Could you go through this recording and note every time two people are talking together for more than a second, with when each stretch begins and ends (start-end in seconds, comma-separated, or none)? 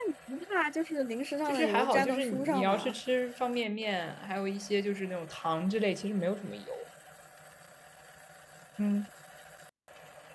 1.5-3.0